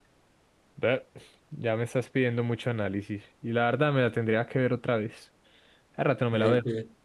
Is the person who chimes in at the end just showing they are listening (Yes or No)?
No